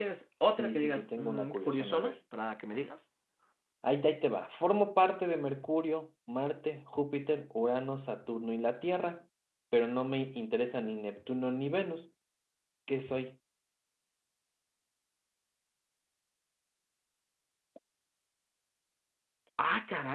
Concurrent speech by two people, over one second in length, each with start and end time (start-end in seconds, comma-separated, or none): 0.5-2.1